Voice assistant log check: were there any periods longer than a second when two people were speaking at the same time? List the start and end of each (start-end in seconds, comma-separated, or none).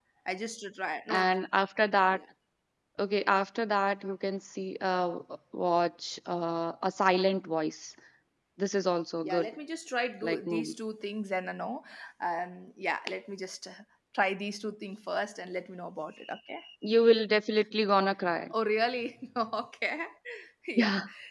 none